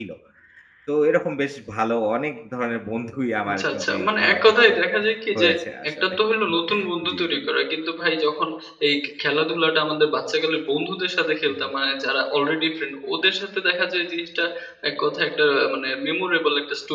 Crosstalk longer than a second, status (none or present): present